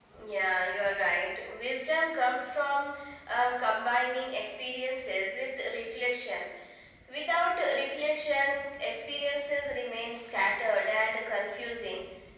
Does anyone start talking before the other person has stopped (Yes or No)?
No